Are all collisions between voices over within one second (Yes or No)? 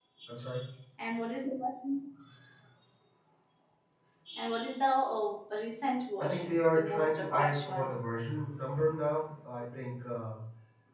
No